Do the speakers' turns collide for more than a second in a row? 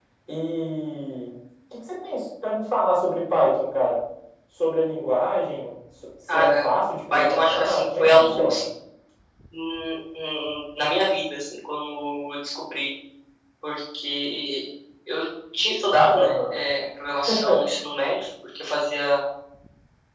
Yes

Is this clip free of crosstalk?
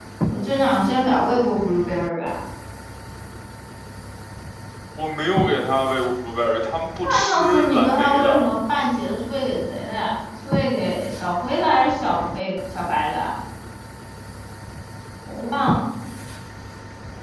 No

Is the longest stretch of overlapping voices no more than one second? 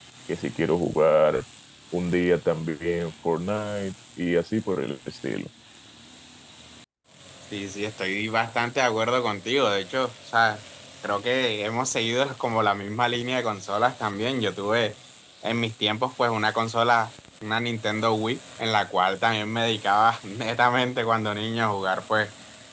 Yes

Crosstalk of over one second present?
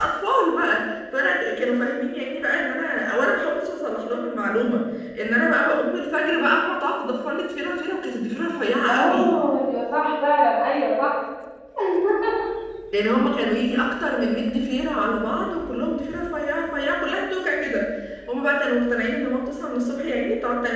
No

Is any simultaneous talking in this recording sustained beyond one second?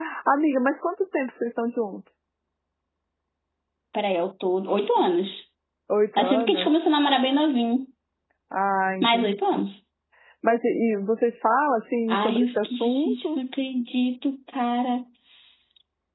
Yes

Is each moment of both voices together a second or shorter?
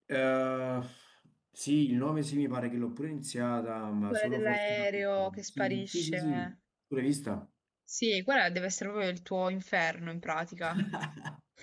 No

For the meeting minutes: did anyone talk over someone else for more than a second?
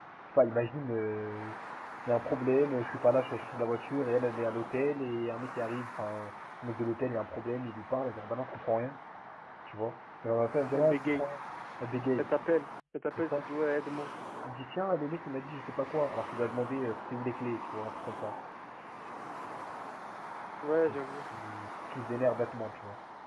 No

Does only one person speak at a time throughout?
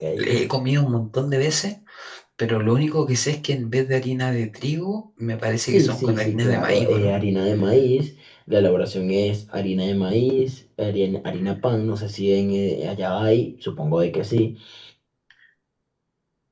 No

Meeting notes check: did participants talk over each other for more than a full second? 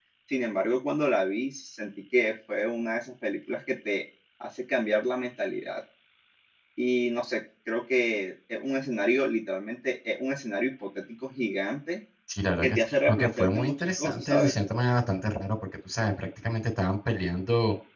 Yes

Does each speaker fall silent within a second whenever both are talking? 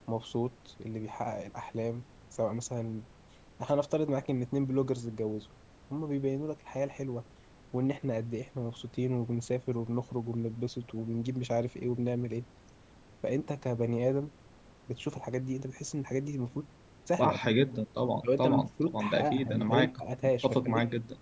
No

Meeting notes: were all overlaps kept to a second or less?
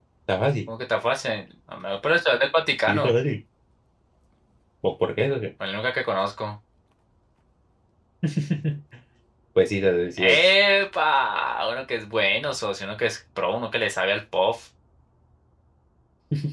Yes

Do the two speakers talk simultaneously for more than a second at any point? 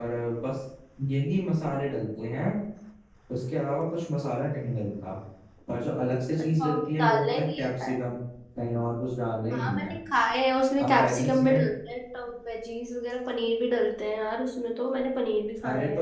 Yes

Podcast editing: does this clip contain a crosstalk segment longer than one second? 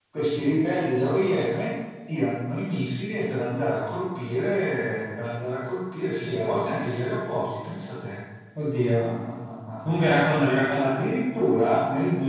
No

